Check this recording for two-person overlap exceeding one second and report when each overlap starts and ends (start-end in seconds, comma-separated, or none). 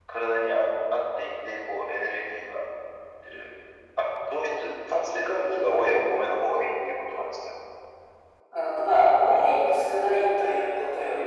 none